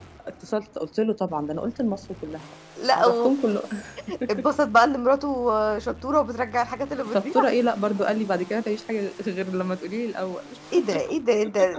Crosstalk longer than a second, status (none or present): none